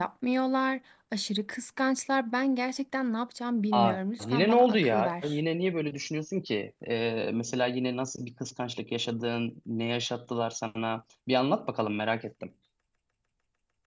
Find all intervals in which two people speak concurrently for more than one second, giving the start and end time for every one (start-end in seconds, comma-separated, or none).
3.7-5.4